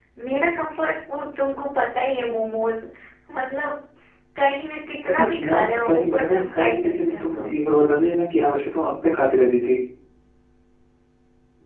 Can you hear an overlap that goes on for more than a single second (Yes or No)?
Yes